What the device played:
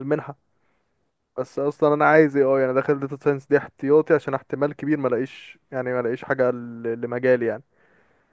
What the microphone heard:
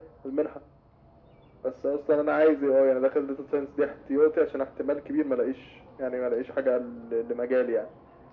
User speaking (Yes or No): No